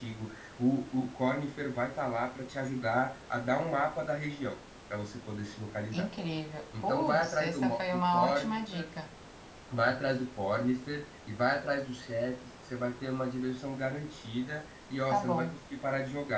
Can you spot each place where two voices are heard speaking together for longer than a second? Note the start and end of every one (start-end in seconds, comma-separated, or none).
6.8-8.8